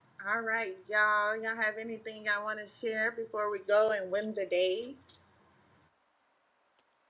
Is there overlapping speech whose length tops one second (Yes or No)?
No